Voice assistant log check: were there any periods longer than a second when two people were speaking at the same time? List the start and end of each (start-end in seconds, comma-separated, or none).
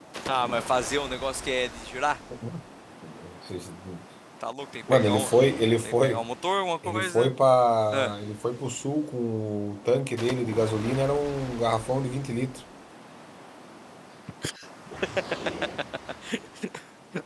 none